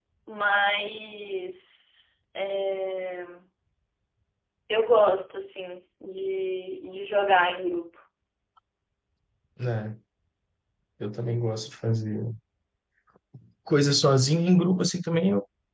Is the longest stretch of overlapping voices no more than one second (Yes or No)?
Yes